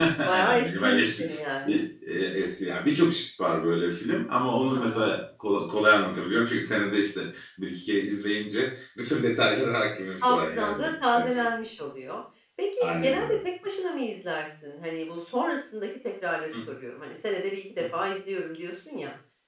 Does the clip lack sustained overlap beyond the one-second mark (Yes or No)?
No